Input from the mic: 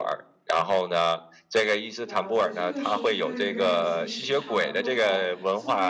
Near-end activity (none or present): present